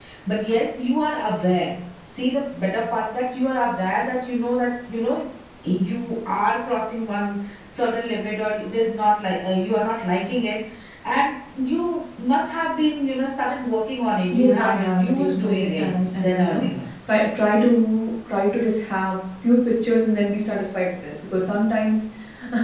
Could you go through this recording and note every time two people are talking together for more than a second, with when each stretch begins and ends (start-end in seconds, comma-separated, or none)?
14.3-16.7